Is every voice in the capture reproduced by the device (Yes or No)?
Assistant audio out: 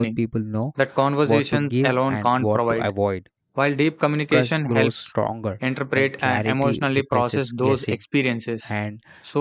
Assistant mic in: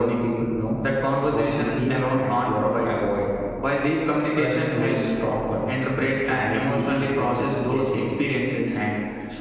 Yes